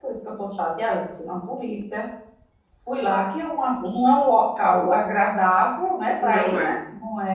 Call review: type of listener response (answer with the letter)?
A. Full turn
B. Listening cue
B